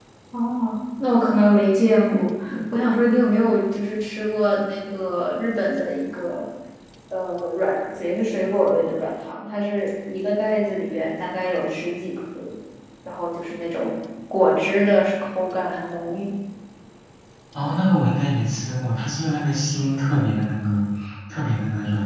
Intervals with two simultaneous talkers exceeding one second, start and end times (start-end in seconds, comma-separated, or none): none